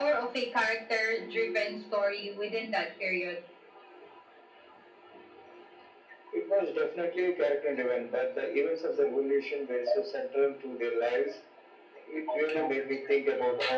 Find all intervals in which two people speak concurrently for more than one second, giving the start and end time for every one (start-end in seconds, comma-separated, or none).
none